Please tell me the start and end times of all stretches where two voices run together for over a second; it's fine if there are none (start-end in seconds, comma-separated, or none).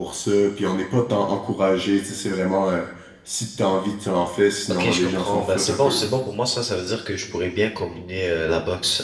4.7-6.0